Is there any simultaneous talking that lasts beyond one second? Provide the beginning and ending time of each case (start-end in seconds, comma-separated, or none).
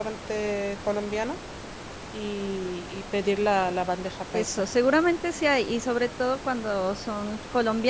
none